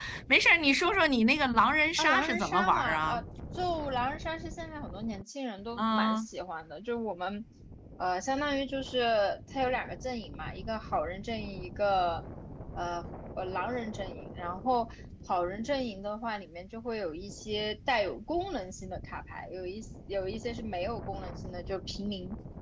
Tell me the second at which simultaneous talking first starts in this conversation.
2.0 s

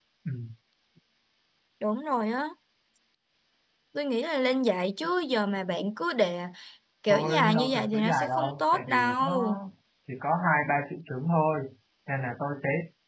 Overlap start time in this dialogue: 7.1 s

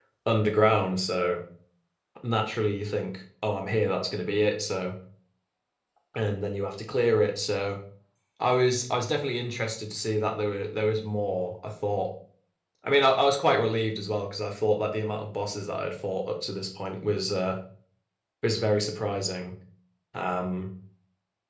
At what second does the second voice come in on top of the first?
none

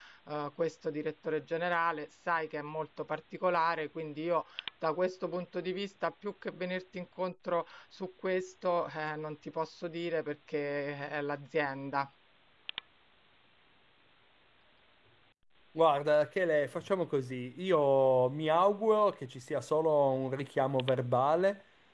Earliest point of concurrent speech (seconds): none

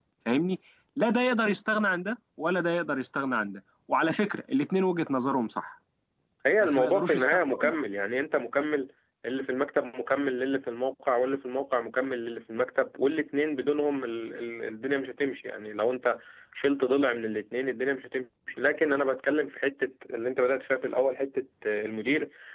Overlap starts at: 6.6 s

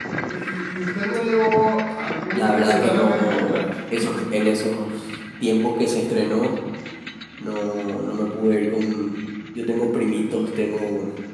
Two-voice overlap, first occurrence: 2.4 s

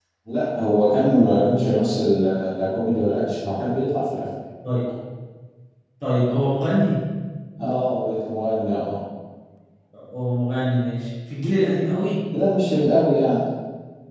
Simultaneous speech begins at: none

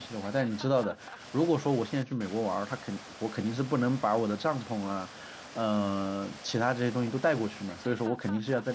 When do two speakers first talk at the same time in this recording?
none

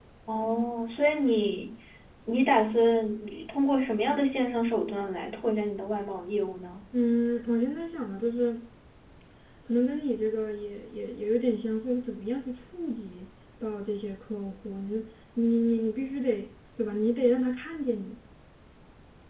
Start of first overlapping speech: none

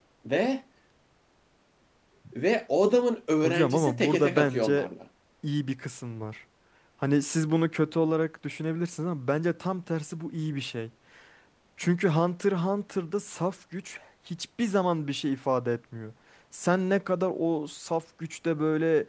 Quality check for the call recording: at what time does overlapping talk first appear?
3.4 s

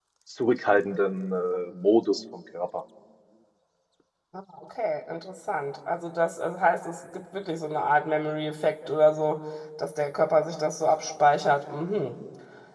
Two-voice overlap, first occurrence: none

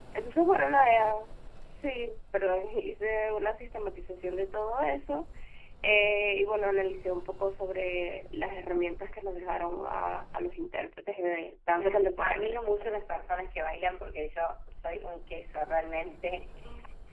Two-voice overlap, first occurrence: 11.8 s

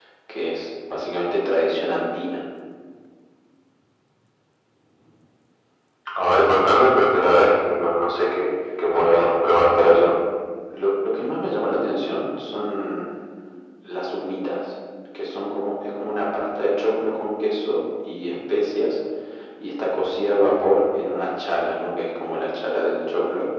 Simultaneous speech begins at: 8.9 s

